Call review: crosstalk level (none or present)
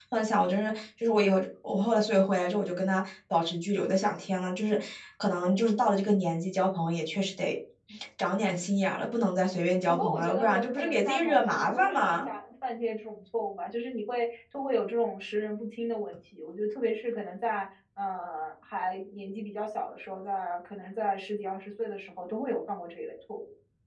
present